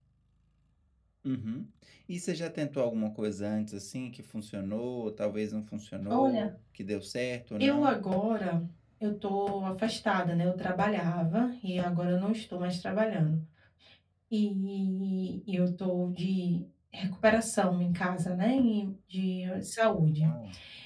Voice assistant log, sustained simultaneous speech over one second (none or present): none